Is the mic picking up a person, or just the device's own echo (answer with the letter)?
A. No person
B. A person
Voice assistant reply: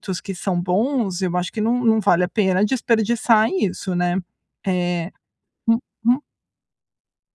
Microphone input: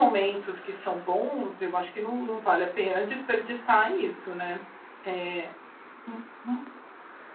A